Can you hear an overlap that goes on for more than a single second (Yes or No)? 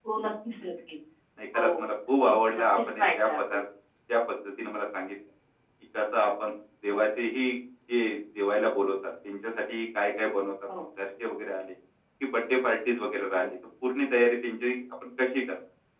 Yes